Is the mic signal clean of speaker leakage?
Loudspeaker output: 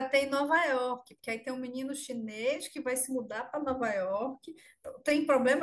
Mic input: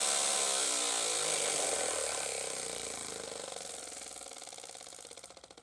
Yes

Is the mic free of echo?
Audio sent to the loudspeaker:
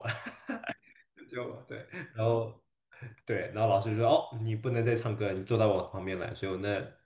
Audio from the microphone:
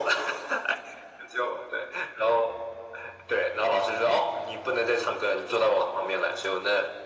No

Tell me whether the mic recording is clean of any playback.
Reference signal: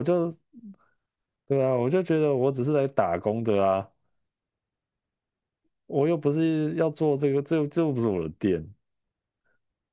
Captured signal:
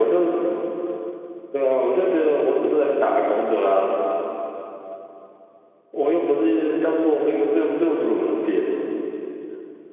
No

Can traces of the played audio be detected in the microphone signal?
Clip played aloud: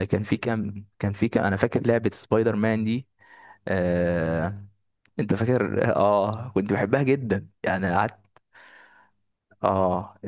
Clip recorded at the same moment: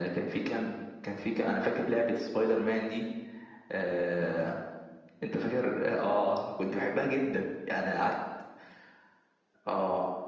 Yes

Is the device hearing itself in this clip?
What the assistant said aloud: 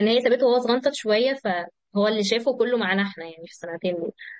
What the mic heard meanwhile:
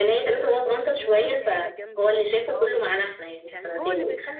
Yes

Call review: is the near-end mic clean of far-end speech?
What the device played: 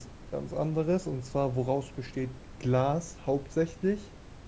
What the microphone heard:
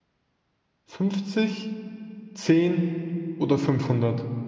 Yes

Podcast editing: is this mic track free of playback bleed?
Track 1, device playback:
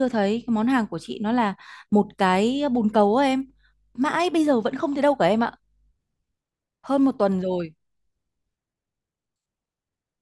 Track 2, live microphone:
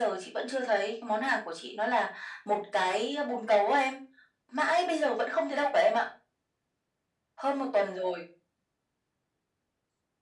No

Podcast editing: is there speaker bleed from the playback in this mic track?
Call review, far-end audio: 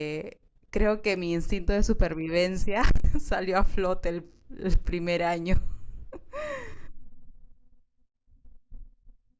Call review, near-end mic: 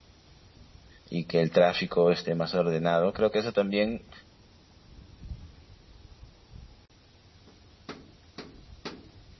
No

